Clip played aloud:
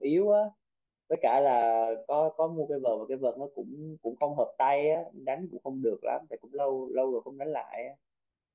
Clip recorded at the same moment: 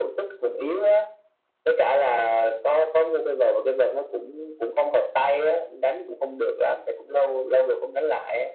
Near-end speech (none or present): none